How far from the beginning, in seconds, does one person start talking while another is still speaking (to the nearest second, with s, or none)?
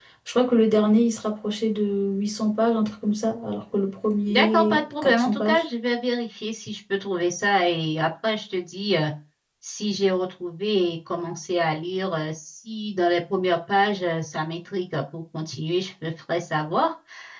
4 s